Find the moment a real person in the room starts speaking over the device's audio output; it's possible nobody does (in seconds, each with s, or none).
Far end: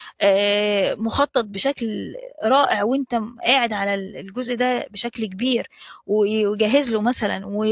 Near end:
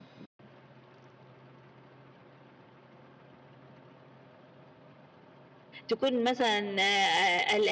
5.9 s